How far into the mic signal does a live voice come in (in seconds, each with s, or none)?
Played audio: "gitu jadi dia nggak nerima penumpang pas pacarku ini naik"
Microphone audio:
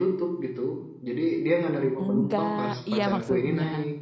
2.0 s